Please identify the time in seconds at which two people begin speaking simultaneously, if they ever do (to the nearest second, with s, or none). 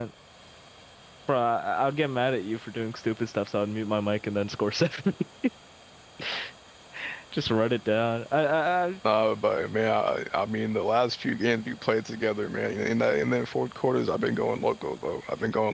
none